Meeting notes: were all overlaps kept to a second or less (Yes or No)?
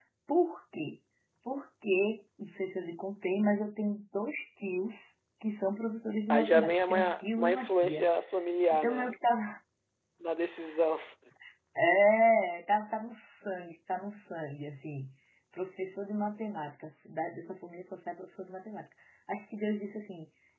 No